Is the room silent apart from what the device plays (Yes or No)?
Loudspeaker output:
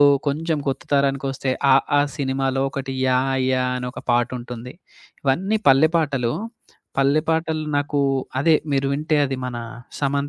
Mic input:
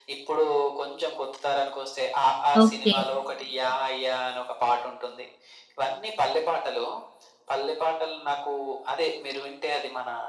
No